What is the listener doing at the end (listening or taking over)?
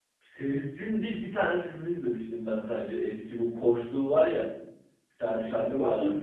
taking over